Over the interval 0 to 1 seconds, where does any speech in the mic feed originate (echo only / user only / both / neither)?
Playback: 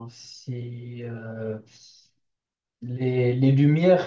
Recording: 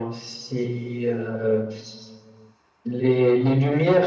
echo only